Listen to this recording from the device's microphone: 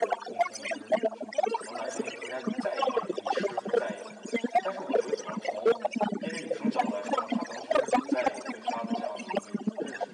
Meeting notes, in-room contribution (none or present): present